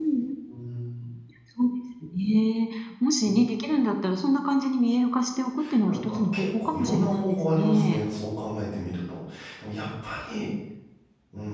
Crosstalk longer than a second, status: present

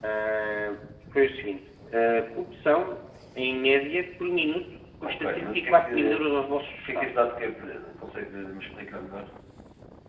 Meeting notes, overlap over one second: present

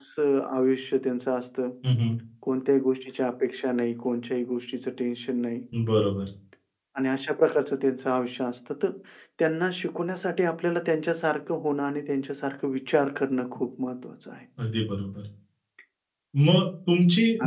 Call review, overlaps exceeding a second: none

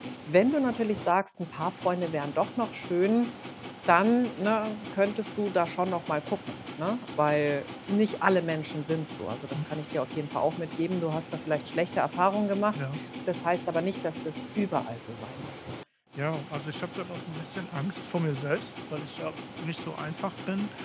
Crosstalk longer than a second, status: none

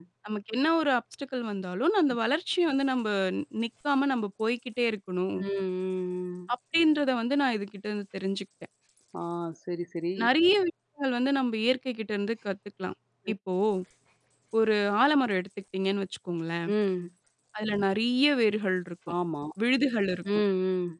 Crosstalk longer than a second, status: none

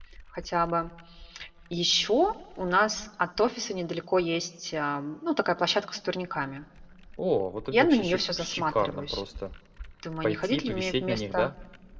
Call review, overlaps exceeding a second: present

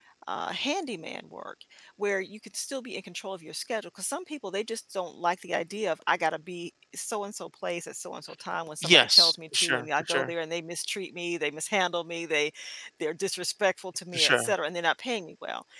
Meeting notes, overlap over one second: present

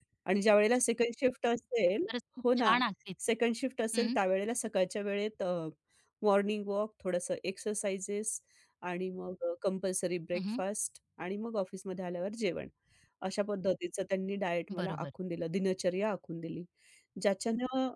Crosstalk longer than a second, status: none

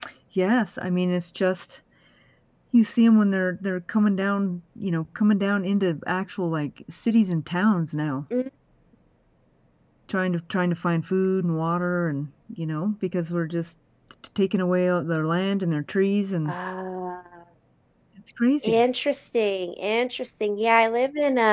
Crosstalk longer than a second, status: none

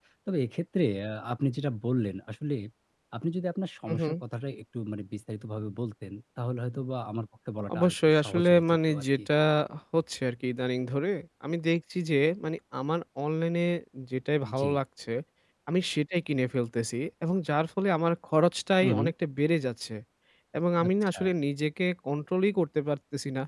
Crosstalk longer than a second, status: present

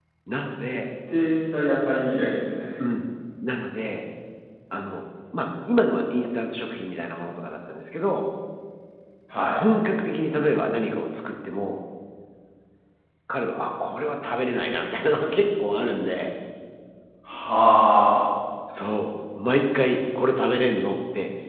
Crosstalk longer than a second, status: none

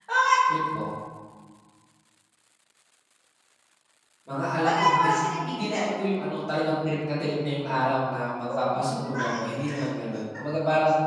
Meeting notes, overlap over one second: present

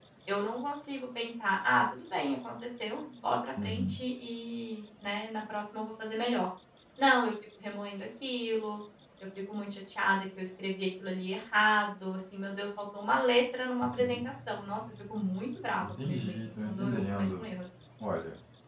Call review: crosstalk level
present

